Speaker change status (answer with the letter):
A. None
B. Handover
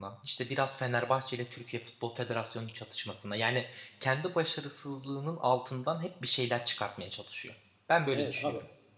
B